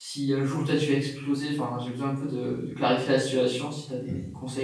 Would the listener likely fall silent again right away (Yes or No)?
No